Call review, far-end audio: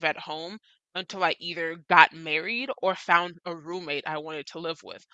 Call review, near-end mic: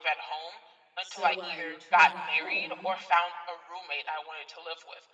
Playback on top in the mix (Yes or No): Yes